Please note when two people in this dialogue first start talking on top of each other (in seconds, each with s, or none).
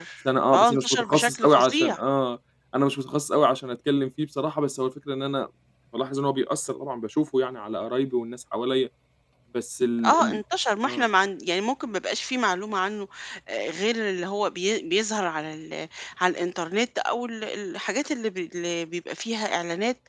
0.6 s